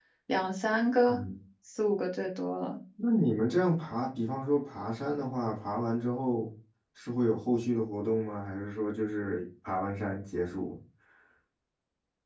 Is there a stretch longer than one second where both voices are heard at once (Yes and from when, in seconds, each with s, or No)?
No